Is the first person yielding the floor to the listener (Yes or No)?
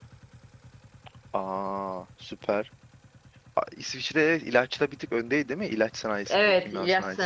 Yes